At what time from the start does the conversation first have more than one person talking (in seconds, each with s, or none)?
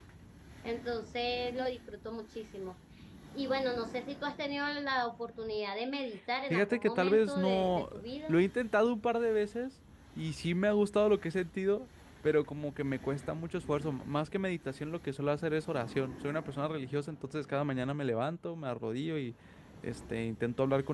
6.5 s